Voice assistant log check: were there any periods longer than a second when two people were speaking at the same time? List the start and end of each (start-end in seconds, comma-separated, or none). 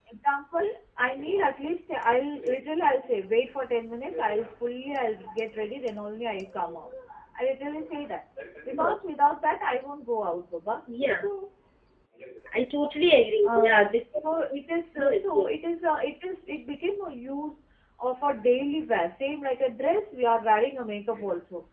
none